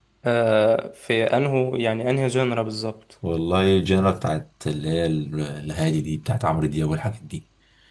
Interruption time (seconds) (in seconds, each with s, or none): none